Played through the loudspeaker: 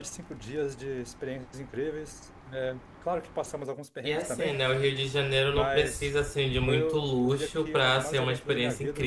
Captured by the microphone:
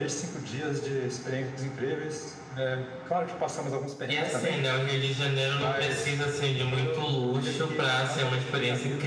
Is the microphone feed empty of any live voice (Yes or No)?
Yes